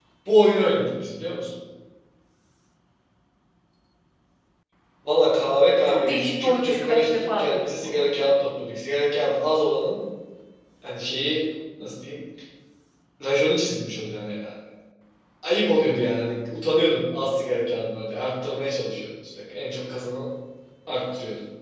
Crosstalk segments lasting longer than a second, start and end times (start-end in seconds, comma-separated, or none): 5.9-8.1